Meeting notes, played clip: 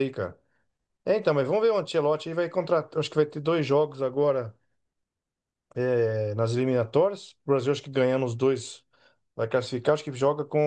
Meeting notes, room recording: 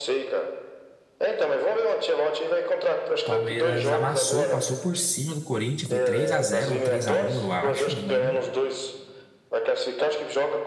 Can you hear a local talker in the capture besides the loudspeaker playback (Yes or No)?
Yes